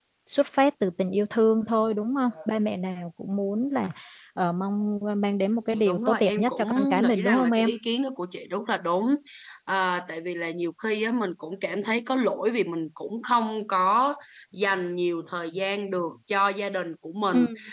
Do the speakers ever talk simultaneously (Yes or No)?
Yes